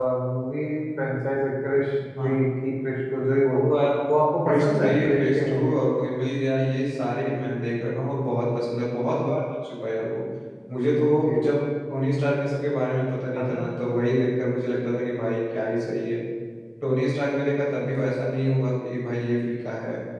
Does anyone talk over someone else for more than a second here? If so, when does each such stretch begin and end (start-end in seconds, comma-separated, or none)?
4.5-5.7